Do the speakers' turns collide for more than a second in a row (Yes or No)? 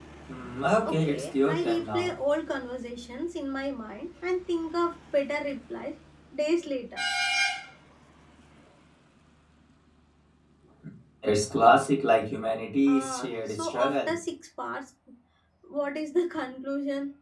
Yes